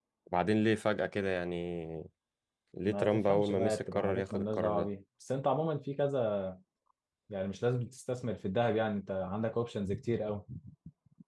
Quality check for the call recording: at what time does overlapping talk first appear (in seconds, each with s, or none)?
2.8 s